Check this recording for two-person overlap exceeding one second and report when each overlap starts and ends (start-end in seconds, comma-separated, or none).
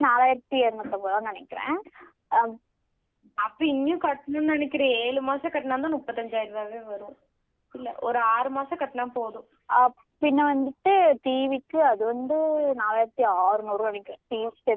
none